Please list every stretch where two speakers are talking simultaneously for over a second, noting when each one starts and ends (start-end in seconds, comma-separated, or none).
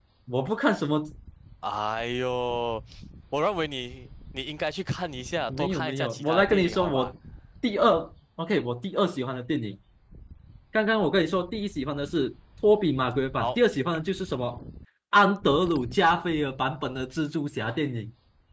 5.5-7.1